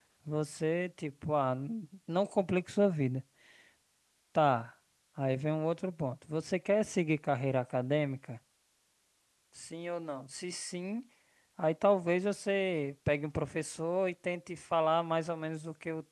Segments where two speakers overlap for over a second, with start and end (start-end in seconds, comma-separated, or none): none